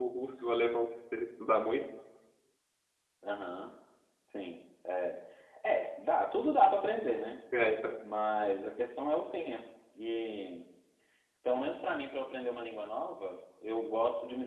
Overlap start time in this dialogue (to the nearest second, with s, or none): none